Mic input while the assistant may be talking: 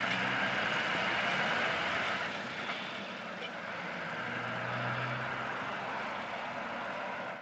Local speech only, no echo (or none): none